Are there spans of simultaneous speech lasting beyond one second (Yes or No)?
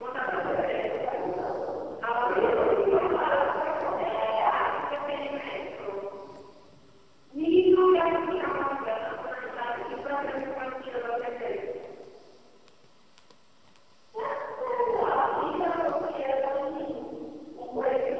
Yes